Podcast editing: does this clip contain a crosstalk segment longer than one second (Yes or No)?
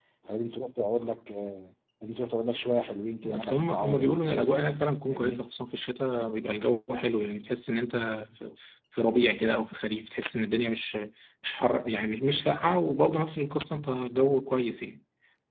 Yes